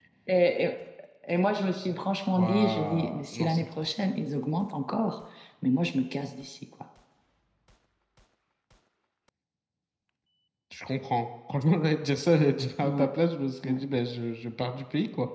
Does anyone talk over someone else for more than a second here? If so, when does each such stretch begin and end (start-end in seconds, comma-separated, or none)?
2.3-3.6